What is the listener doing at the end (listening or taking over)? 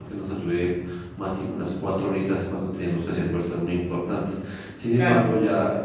listening